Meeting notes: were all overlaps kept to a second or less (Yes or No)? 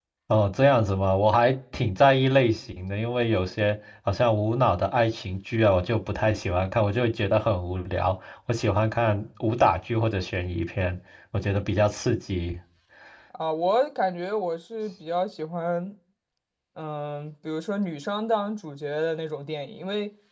Yes